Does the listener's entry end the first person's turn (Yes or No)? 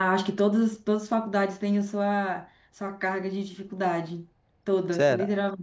Yes